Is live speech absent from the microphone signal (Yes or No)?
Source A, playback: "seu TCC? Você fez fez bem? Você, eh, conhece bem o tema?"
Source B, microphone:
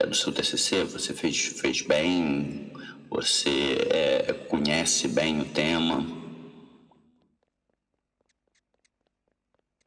Yes